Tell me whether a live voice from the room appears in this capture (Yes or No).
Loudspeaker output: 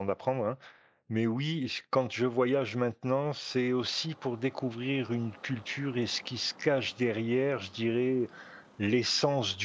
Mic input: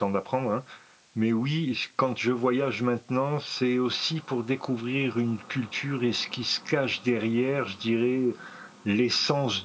No